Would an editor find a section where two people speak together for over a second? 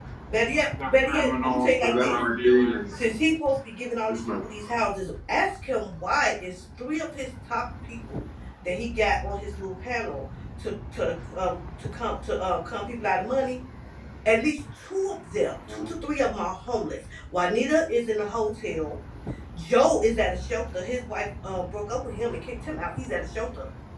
Yes, from 0.8 s

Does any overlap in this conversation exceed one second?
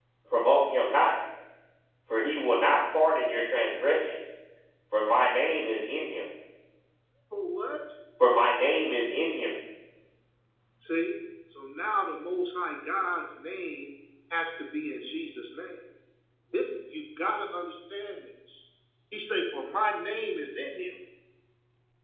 No

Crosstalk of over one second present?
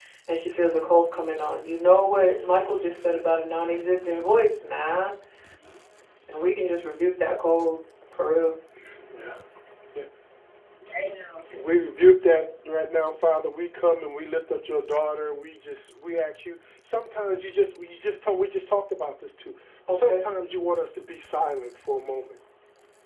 No

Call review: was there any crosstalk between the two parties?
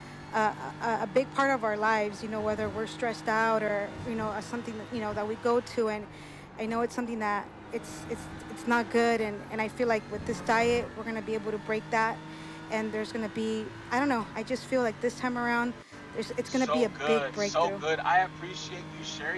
Yes, from 16.4 s

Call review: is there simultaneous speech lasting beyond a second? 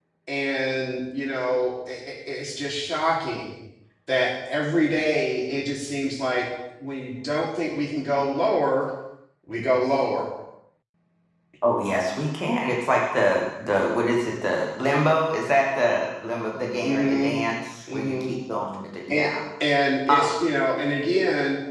No

